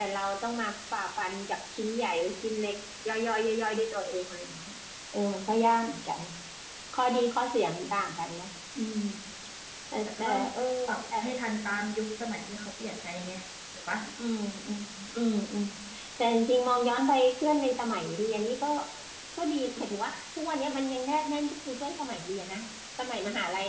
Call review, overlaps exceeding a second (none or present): none